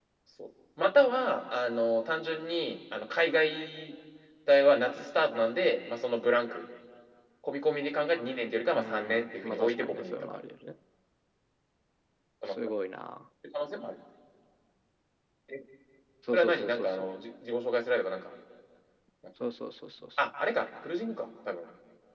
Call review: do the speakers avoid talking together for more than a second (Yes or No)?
No